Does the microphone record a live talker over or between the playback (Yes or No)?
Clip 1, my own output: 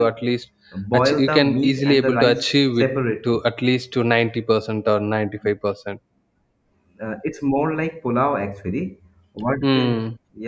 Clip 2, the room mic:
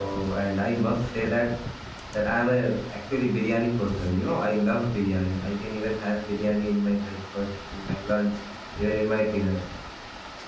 Yes